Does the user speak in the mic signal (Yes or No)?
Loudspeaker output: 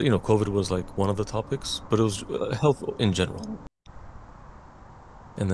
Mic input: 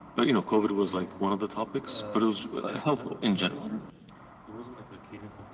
Yes